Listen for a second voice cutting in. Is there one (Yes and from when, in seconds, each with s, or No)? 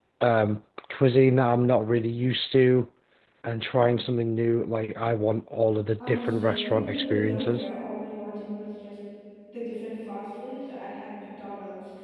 Yes, from 6.0 s